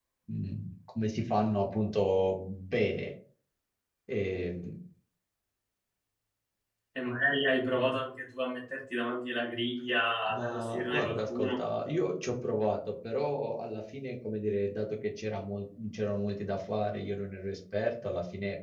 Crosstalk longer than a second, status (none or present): present